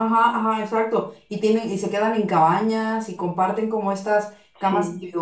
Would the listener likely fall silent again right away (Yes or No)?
Yes